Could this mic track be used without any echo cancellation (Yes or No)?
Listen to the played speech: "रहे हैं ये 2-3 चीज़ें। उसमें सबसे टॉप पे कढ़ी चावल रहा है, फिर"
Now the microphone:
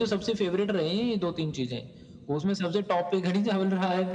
No